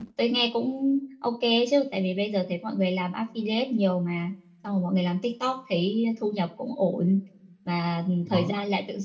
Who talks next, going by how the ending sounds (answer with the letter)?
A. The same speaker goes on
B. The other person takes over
A